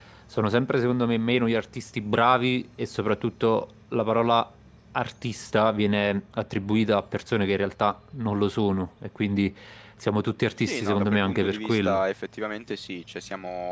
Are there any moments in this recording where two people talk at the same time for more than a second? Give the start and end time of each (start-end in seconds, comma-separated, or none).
10.6-12.0